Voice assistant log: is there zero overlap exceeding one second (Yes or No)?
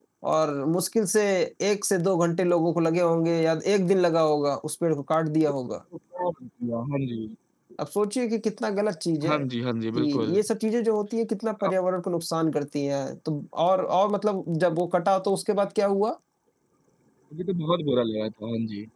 Yes